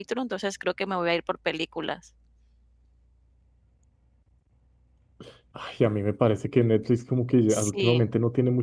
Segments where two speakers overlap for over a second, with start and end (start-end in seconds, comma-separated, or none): none